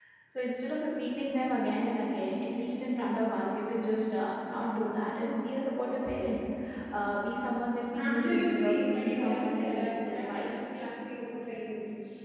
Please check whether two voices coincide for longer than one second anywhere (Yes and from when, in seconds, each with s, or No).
Yes, from 7.9 s